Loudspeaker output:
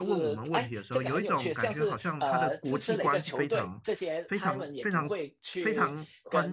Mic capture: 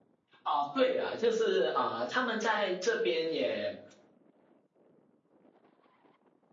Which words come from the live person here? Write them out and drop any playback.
啊，对啊，就是啊、呃他们在这边也，

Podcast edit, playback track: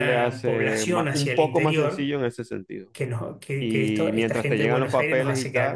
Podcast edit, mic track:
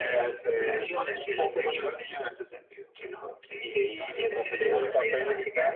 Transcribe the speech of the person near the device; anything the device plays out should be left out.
none

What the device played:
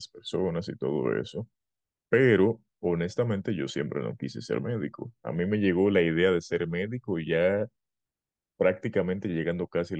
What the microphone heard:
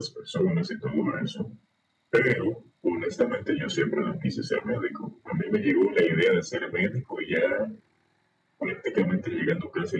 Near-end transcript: none

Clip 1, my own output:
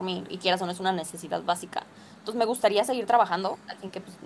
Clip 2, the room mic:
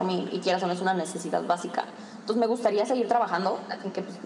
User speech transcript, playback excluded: none

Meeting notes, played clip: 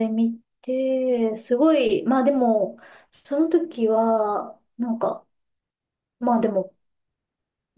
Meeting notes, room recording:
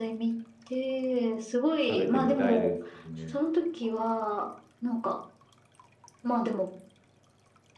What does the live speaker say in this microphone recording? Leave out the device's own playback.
食べてみたいですよね。

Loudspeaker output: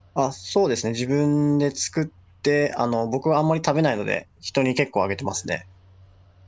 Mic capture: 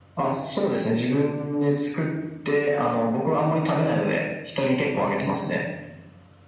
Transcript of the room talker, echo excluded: none

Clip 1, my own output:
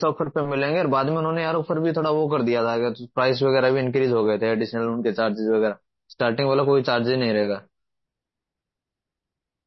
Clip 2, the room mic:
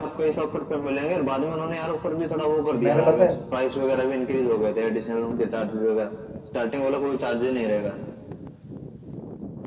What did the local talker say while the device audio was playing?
मैंने पता है

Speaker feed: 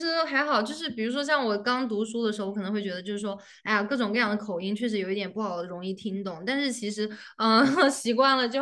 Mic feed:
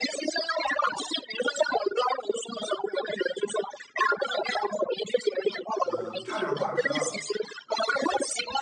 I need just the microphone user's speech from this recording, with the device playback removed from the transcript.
呃，差点儿挂科儿

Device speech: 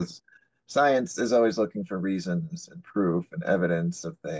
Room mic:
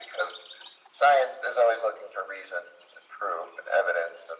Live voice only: none

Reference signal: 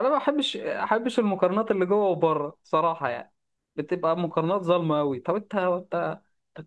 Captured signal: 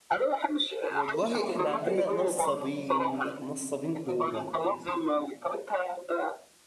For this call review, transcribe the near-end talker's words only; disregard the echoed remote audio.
والله احنا عندنا نصابين نصابين كوره

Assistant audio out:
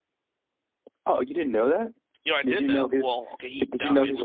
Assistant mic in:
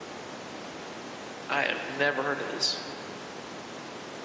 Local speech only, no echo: I have never heard of this.

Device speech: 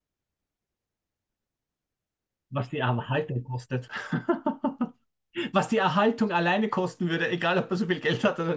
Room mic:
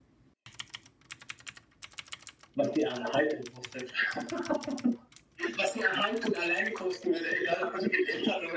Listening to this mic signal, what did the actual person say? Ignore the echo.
none

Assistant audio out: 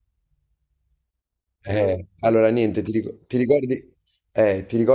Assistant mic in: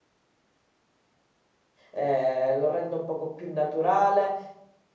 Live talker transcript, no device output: eh, lo rendo un poco più naturale,

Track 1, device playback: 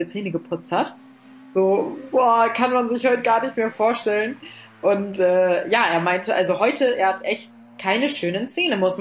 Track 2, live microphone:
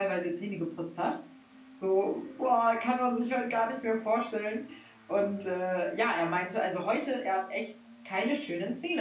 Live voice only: none

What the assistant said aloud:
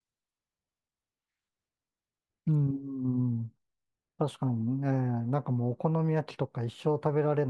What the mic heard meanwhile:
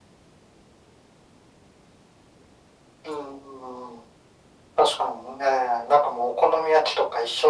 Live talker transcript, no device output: none

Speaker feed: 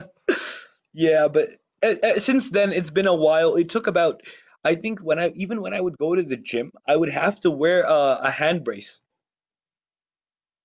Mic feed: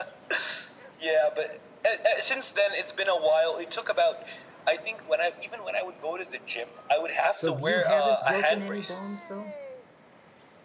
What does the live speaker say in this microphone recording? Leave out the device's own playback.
So you haven't broken any bones though?

